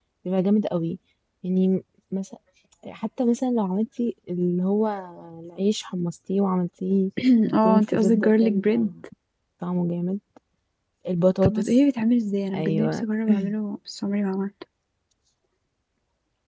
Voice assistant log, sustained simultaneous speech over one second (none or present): present